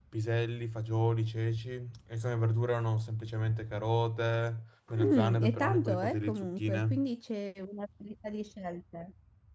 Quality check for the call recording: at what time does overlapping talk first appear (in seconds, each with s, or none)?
4.9 s